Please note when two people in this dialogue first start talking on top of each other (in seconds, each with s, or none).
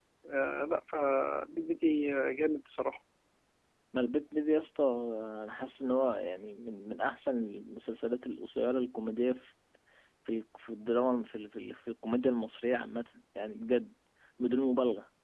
none